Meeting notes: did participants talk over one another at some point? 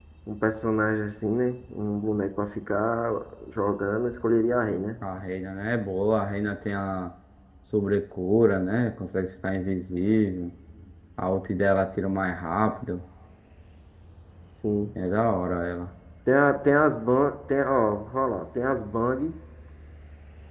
No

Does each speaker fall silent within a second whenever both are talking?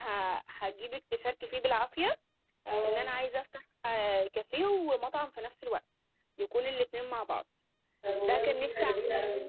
No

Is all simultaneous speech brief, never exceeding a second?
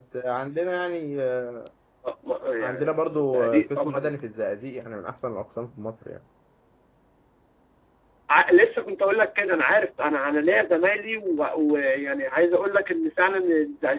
No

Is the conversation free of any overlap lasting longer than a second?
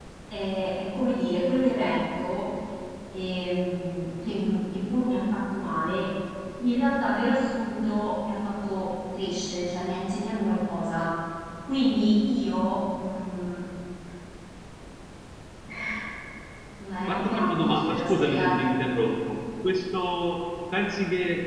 No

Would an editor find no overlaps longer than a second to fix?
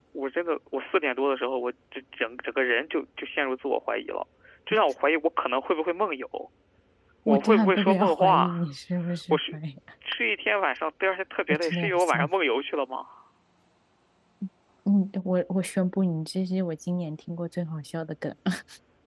No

